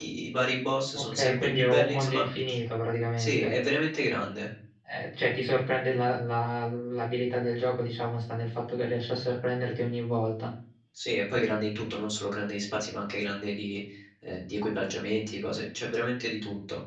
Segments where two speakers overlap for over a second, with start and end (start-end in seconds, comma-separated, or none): 1.0-2.2